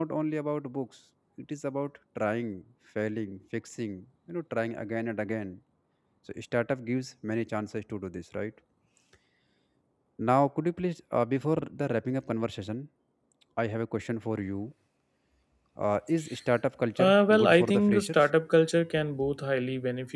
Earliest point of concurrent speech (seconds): 17.0 s

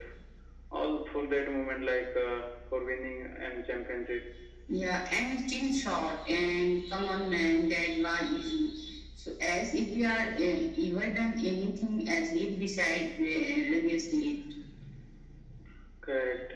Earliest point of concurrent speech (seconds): none

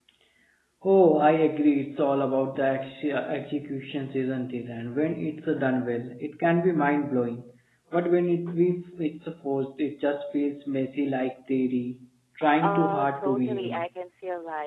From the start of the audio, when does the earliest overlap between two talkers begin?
12.6 s

